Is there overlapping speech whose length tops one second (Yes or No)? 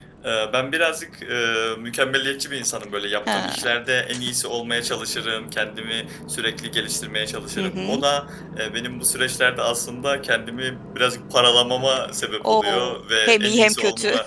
Yes